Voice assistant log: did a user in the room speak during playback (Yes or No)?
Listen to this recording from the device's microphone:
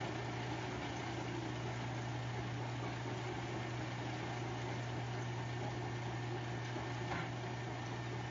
No